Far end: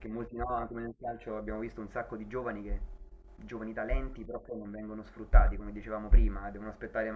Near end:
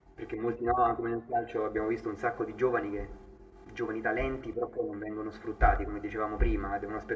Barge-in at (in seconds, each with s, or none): none